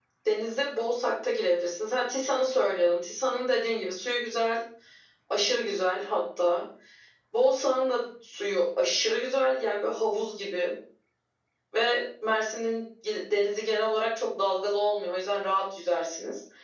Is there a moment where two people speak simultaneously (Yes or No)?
No